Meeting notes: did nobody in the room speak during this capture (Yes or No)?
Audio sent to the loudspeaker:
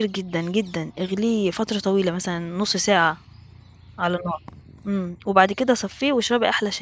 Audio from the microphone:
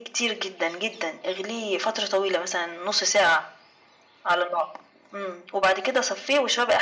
Yes